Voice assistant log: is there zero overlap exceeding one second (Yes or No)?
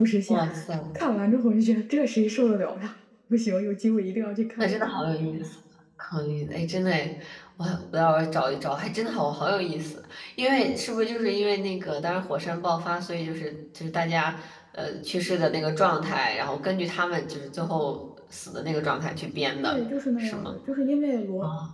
Yes